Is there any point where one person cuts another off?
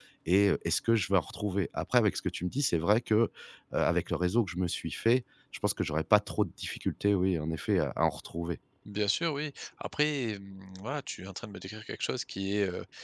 No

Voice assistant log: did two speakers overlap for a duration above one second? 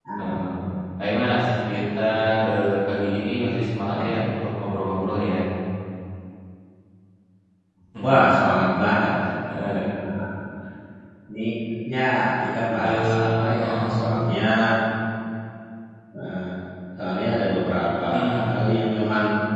Yes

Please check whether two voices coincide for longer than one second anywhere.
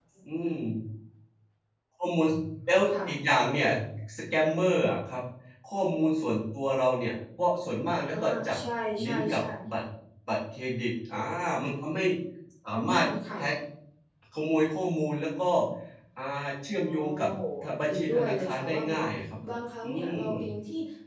Yes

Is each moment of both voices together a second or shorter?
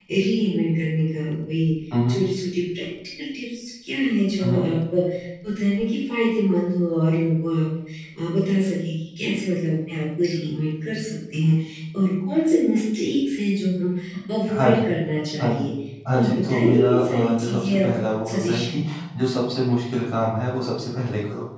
No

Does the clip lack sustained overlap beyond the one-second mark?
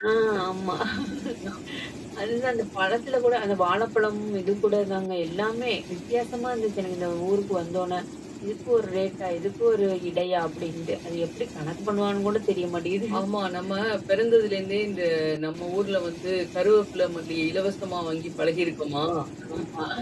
Yes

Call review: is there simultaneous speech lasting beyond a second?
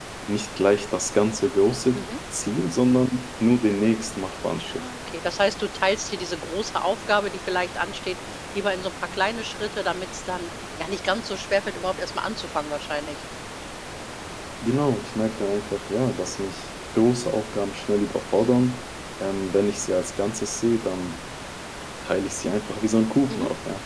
No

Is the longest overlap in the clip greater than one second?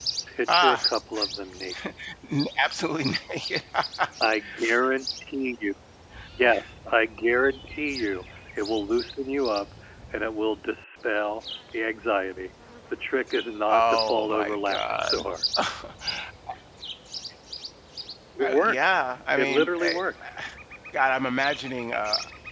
Yes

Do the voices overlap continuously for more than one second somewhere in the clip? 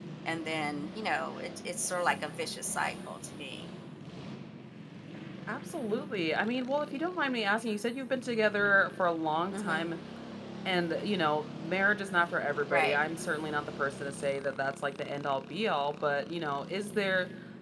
No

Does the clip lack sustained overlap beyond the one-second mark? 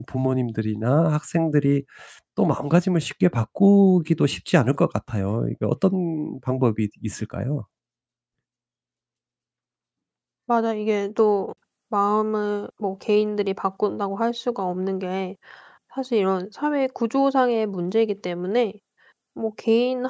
Yes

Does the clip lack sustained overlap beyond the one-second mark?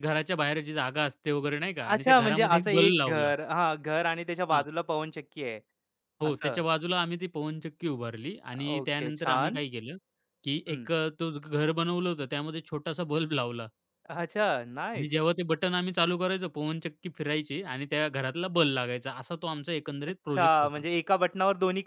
No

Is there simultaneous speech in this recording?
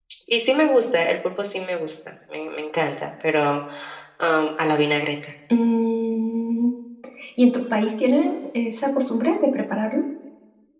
No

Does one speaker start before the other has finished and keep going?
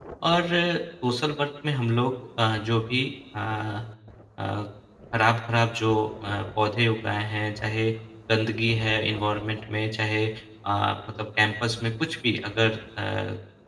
No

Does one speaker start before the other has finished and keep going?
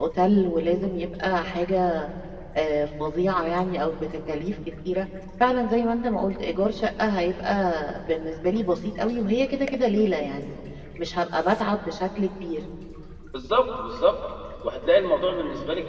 No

